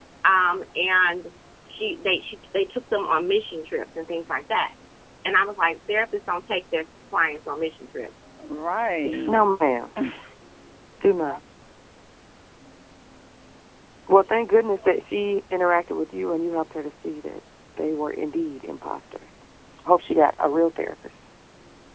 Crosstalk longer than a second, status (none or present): none